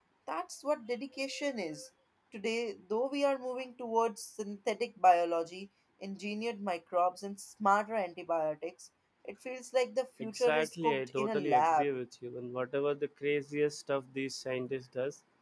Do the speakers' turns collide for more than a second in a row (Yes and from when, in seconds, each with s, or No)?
Yes, from 10.2 s